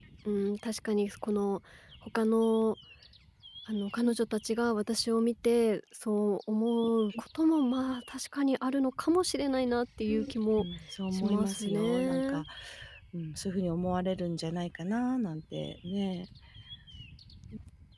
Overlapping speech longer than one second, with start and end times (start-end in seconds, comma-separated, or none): 11.1-12.4